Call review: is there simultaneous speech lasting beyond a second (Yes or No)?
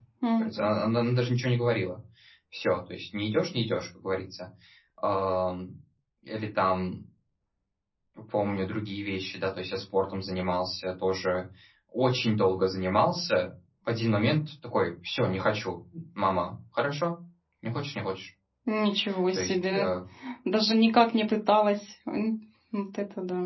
No